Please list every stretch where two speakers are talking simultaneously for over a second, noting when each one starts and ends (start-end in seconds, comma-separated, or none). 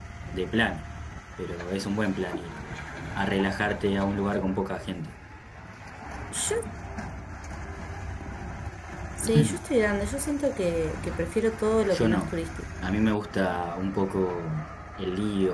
none